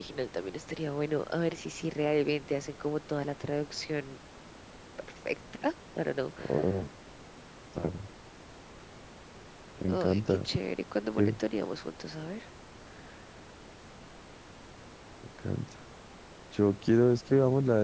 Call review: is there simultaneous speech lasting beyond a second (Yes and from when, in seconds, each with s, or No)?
No